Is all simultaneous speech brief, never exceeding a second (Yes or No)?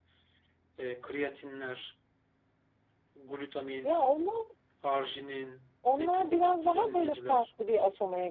No